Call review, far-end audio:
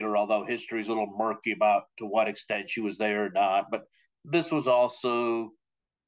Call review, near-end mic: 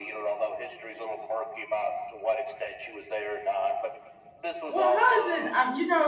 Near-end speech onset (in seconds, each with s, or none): 4.7 s